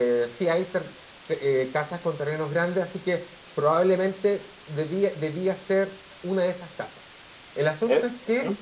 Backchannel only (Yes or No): No